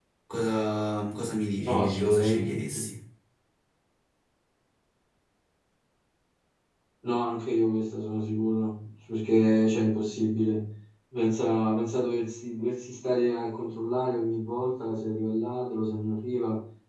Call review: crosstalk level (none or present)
present